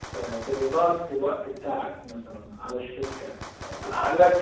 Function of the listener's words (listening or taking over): taking over